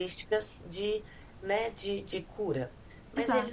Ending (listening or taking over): listening